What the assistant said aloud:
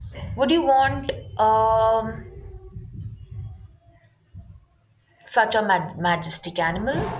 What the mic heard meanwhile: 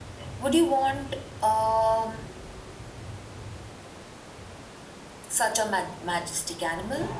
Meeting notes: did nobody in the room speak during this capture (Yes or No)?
Yes